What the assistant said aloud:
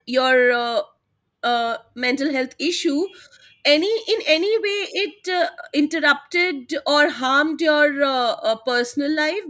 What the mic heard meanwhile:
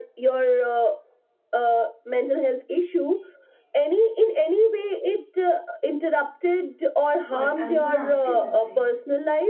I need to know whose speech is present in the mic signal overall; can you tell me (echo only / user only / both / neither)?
both